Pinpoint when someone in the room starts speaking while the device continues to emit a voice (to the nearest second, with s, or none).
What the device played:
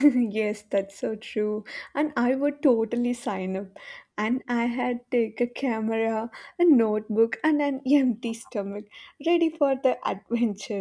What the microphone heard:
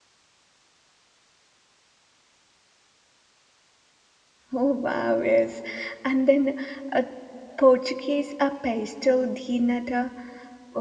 5 s